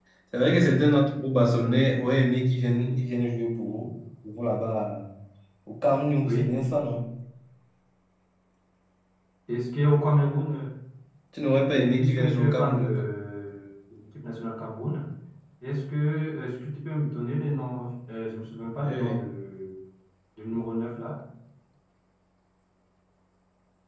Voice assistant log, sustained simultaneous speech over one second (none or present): present